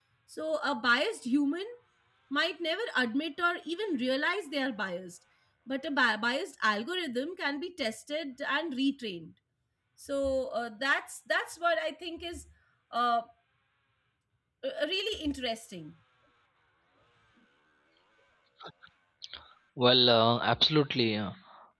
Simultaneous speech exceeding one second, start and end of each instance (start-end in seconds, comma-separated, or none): none